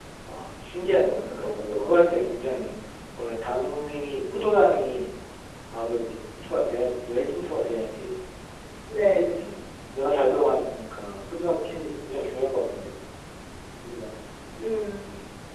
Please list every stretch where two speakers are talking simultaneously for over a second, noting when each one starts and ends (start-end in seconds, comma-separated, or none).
0.8-2.3